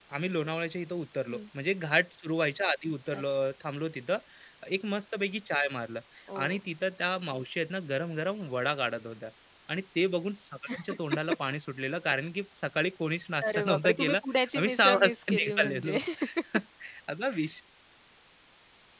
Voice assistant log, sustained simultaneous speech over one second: present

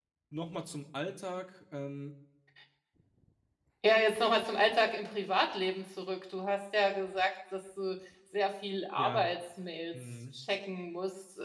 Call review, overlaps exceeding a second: none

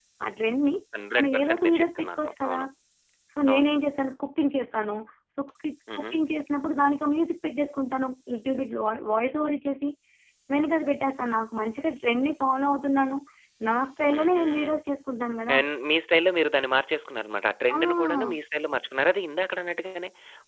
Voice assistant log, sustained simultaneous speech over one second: present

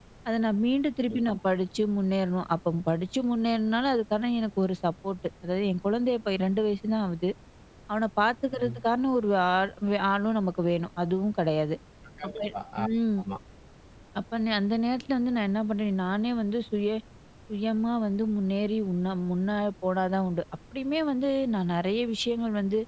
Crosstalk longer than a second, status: none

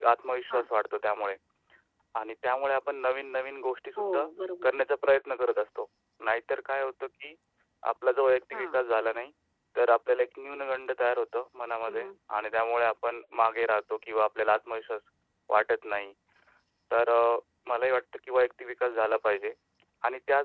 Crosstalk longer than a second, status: none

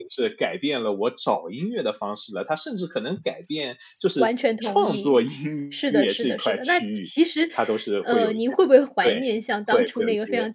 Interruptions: present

